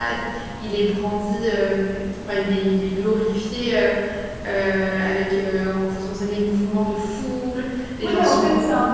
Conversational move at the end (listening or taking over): taking over